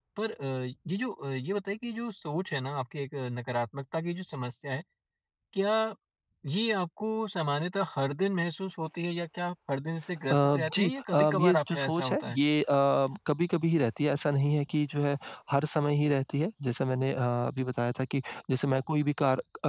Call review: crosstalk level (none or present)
present